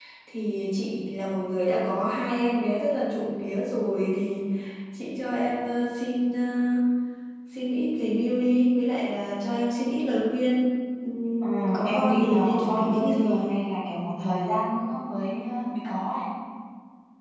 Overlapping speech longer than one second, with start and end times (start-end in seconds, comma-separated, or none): 11.4-13.5